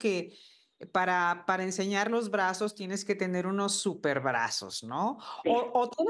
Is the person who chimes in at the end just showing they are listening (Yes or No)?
Yes